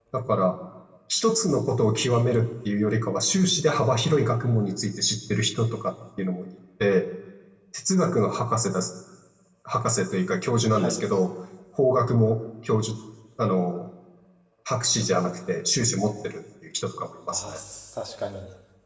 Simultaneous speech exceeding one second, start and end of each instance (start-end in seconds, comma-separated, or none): none